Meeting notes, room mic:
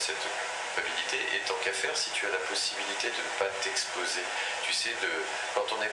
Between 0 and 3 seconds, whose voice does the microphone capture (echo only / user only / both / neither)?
echo only